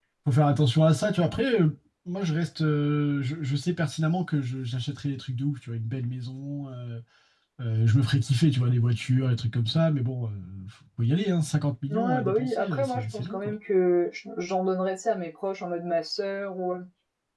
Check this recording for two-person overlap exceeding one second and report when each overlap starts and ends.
11.9-13.5

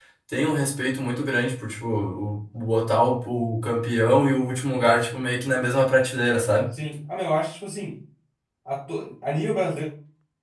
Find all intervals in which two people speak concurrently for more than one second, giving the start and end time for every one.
none

